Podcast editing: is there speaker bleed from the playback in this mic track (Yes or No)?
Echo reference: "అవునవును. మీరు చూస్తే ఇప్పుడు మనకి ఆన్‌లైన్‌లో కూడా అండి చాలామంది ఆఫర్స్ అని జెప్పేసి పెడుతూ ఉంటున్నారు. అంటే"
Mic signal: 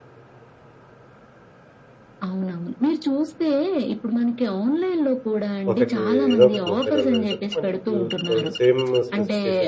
Yes